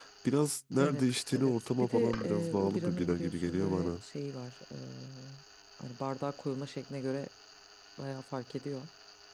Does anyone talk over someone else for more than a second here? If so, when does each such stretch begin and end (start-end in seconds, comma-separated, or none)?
0.8-3.9